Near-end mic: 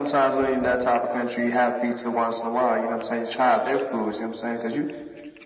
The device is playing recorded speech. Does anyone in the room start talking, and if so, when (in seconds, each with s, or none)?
none